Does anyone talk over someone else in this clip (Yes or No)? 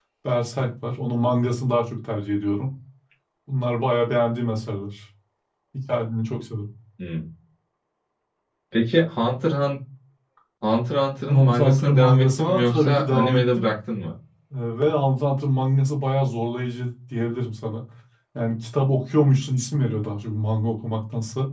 Yes